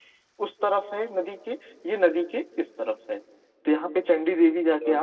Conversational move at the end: listening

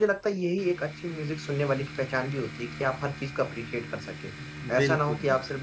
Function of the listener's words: listening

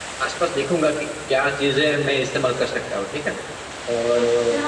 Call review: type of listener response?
listening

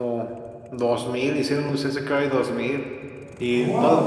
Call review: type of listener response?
taking over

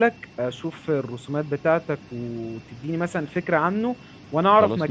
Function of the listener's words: listening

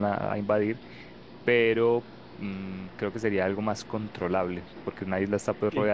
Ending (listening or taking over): listening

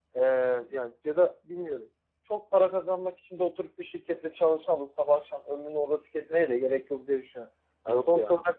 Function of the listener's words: listening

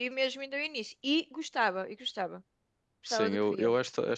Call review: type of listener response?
taking over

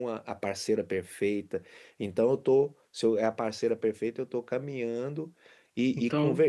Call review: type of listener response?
listening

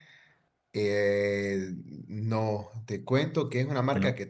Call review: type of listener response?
listening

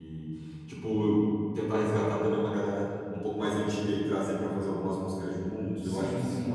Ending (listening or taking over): taking over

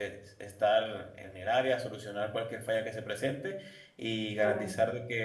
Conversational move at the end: listening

